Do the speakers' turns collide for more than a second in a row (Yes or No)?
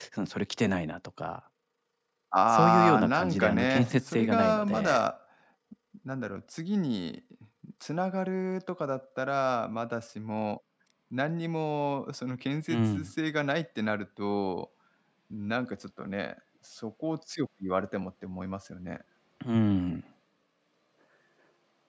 Yes